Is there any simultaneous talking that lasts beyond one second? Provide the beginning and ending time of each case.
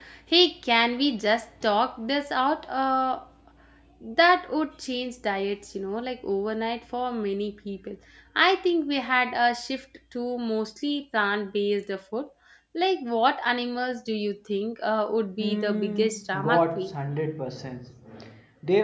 15.4-16.9

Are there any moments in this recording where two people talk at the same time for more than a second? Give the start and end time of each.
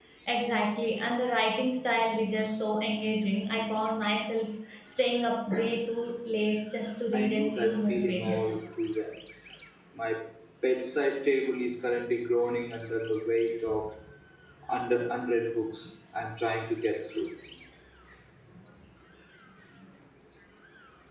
7.1-8.6

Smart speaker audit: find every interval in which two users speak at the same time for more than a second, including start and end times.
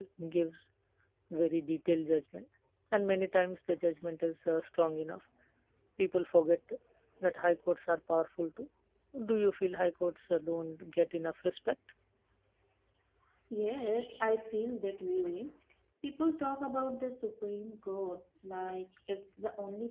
none

